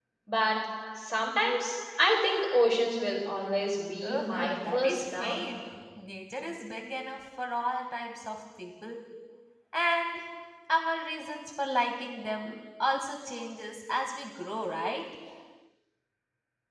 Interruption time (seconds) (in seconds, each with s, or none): 4.0 s